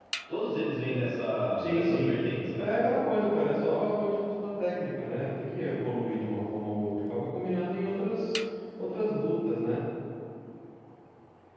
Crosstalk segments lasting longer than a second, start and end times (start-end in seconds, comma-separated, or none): none